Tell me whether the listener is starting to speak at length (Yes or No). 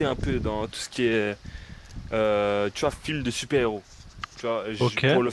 No